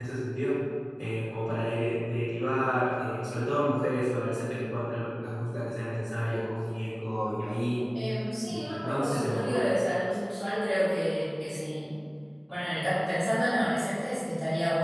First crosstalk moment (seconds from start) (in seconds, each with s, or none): 8.4 s